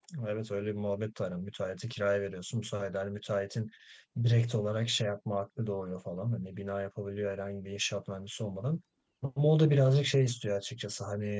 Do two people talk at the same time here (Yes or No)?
No